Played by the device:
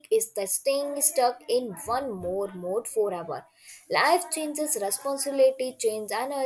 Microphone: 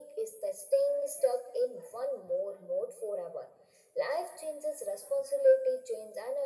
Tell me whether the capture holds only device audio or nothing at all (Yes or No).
Yes